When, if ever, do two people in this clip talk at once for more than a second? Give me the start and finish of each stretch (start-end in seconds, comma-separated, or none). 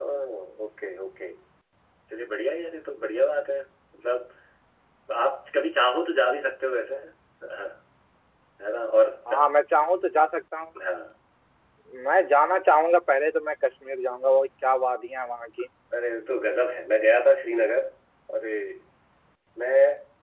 none